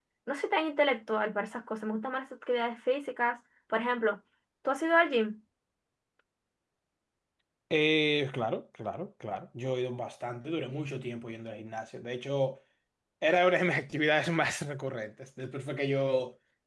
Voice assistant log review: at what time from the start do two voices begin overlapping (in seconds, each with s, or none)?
none